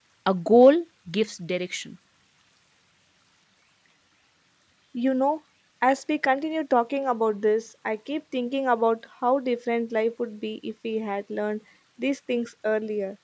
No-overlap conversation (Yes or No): Yes